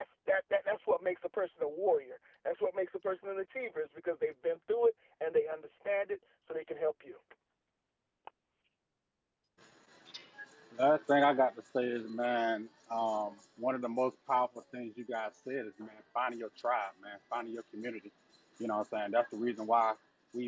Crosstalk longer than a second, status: none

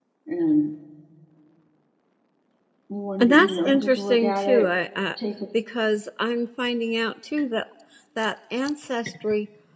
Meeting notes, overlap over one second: present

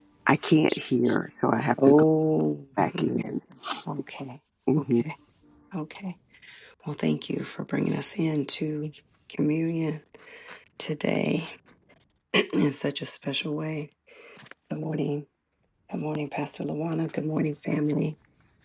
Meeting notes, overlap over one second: none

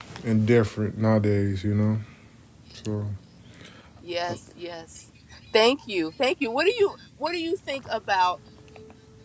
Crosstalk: none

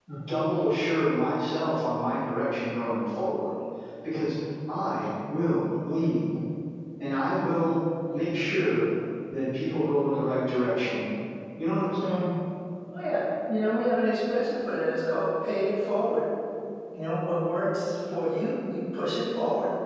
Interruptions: none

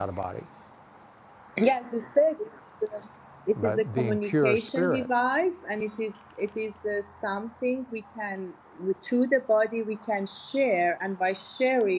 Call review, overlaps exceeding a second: present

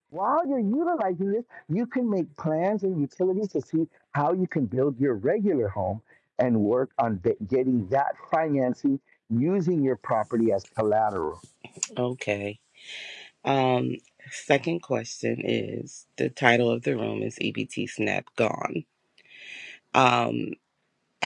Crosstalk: none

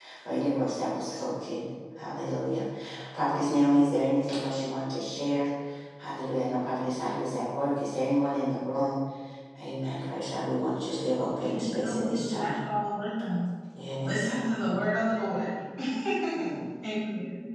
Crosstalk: present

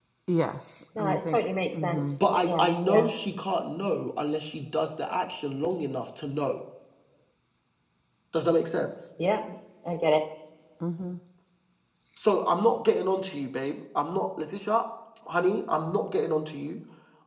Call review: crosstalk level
present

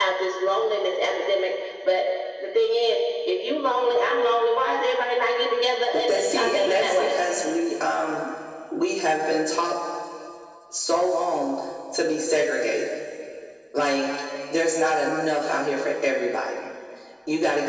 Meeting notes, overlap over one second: present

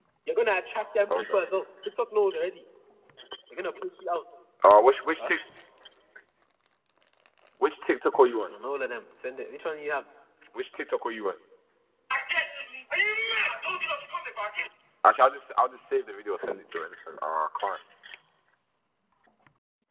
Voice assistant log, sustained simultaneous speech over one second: none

